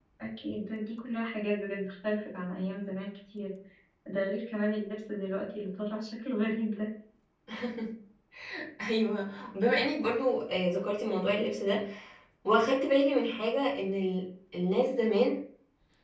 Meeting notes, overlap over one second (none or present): none